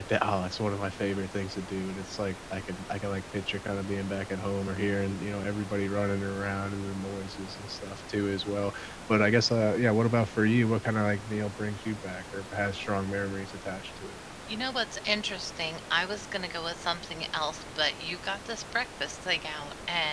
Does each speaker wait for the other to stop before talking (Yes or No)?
Yes